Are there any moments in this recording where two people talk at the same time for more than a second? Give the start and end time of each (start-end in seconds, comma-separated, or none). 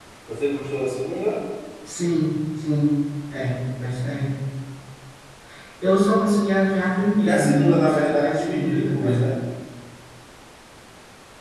7.2-9.2